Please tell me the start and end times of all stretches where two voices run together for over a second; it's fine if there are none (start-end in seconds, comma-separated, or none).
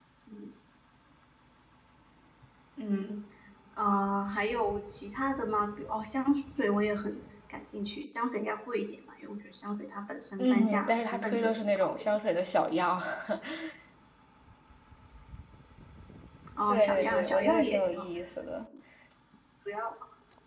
10.4-12.0, 16.7-18.1